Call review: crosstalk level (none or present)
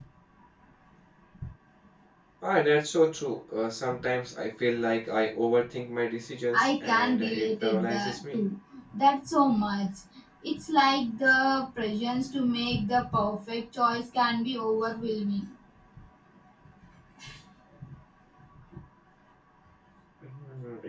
present